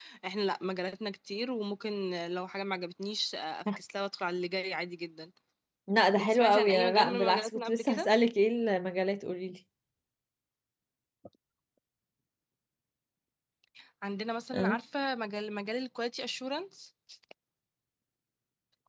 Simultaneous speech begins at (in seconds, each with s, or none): 6.2 s